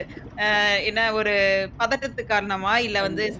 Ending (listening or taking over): listening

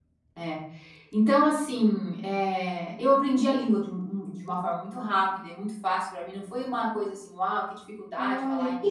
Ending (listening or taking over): taking over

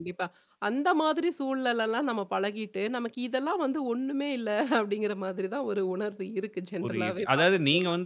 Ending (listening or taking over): taking over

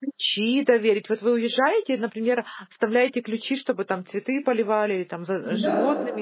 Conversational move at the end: taking over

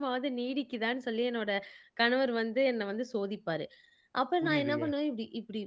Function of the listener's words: listening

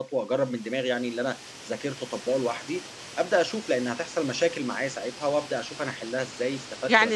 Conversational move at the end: taking over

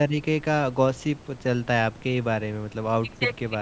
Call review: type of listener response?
taking over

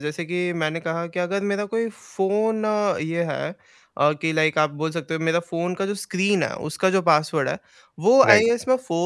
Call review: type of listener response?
listening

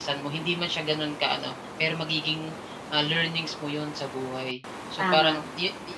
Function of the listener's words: listening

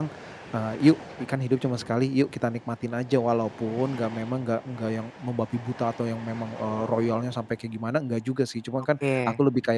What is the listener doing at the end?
listening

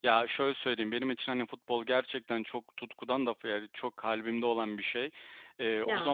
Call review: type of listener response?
listening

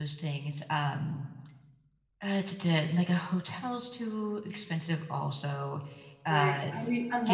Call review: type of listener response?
taking over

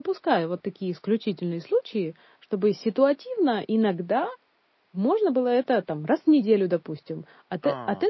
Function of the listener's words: listening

